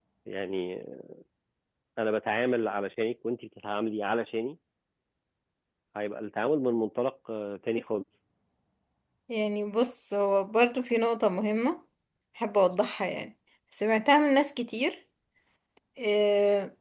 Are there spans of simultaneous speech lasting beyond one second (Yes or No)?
No